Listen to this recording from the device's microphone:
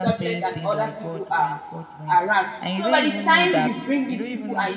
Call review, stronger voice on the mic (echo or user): user